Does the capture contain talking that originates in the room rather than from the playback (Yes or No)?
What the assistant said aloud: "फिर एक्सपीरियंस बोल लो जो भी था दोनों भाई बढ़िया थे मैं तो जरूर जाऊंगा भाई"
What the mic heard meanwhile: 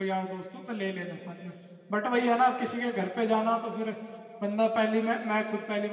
Yes